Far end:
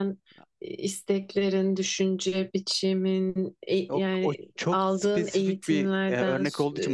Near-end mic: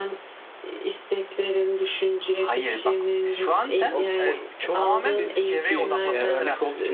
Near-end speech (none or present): present